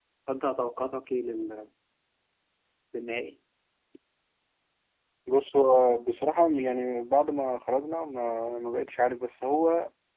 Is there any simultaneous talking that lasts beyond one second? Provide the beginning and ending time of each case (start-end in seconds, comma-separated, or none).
none